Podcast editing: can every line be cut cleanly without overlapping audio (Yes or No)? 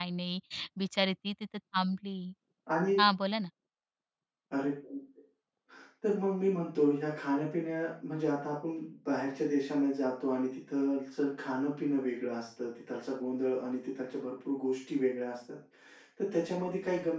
Yes